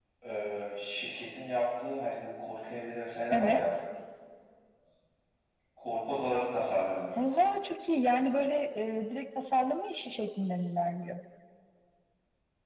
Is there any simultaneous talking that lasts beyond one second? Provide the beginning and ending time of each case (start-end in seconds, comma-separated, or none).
none